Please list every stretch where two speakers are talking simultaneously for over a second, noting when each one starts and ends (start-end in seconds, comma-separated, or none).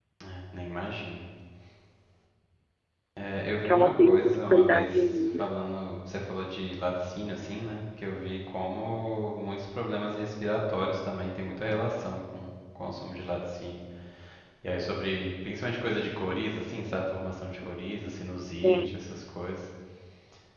3.6-4.9